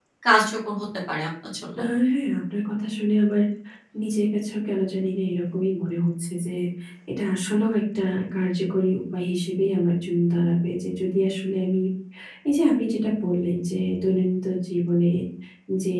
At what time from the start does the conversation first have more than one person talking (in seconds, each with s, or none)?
none